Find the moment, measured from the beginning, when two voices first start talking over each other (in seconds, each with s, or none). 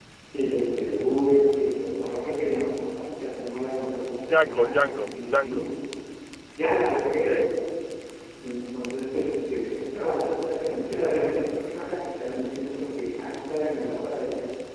4.3 s